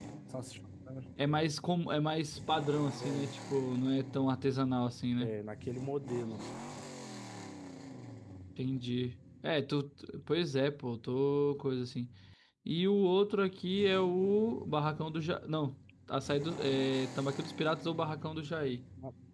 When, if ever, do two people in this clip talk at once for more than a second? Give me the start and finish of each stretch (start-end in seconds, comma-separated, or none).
none